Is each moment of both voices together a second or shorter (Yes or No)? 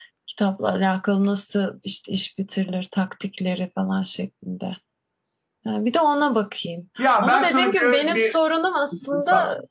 No